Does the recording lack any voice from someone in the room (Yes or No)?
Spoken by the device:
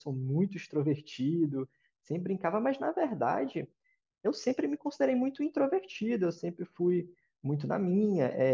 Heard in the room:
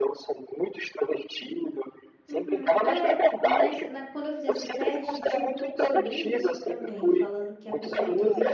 No